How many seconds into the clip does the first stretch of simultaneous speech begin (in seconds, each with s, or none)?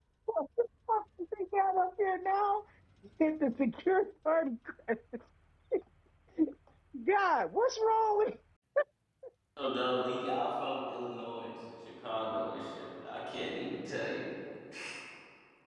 none